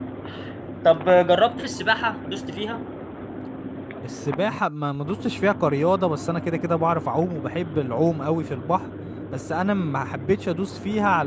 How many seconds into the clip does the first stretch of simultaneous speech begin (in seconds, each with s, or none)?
none